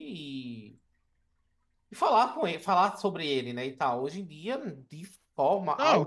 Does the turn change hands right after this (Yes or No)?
Yes